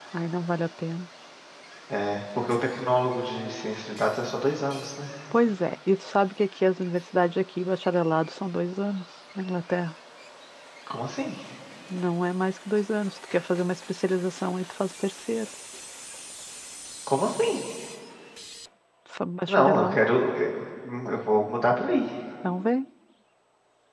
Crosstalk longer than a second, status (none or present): none